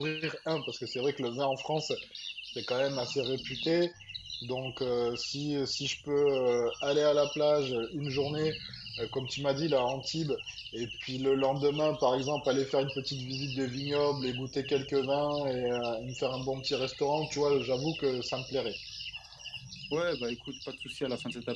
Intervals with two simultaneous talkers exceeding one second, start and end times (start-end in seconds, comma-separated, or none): none